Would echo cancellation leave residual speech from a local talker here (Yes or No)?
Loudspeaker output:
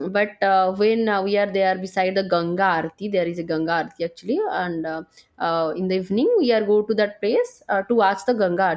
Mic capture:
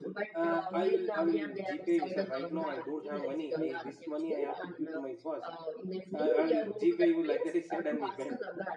Yes